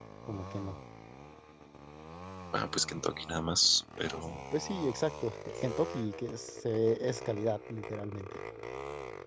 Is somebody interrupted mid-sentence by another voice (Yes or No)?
No